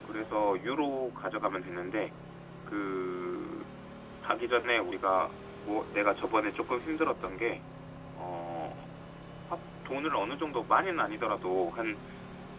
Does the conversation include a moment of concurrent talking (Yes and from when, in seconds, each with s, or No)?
No